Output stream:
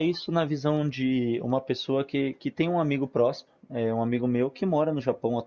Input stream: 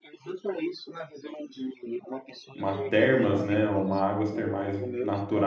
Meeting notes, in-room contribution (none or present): present